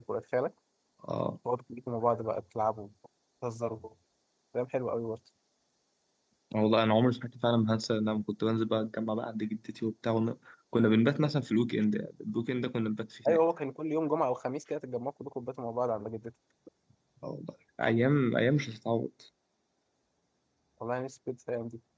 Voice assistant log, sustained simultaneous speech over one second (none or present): none